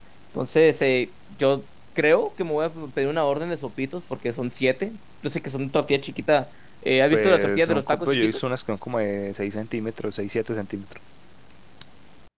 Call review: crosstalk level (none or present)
present